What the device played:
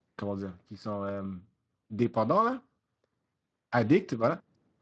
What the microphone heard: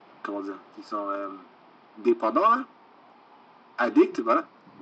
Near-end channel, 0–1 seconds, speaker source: echo only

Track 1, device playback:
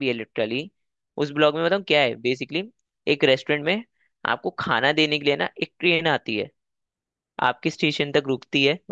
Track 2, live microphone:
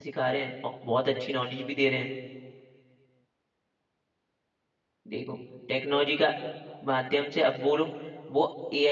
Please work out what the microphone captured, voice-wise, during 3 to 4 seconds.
neither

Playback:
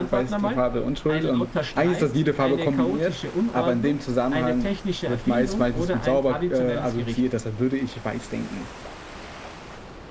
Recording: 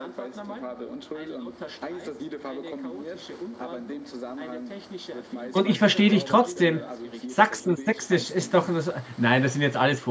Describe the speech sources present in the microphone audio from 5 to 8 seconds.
both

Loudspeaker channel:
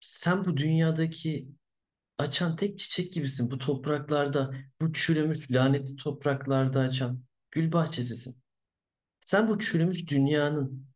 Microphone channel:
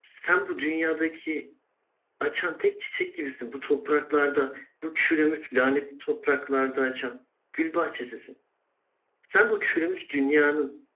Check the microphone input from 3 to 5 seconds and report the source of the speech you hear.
echo only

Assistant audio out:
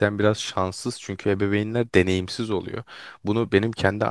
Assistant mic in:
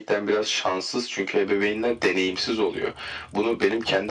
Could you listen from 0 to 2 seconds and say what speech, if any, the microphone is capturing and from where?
echo only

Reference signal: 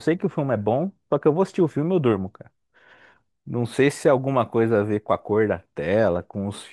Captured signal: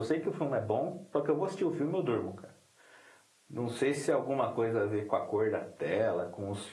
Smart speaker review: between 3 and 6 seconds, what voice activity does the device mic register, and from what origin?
echo only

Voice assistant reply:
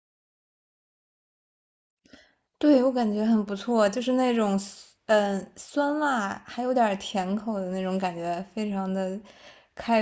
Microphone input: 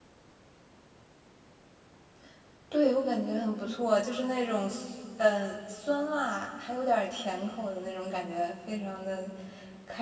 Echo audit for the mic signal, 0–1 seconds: neither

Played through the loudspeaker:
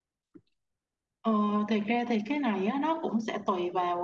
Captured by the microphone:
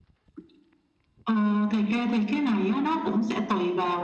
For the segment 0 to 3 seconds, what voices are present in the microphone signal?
echo only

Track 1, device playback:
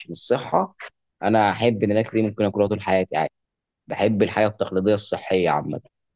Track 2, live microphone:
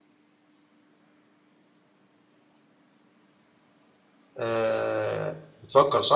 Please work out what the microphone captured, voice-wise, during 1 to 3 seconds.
neither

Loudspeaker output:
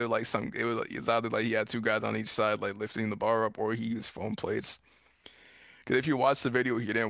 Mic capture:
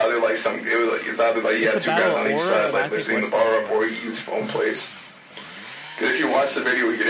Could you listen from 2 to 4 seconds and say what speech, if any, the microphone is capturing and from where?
both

